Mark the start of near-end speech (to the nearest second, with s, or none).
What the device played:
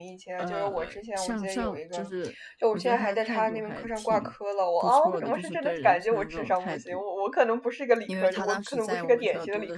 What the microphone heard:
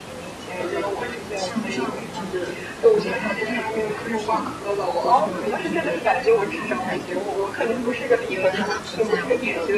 none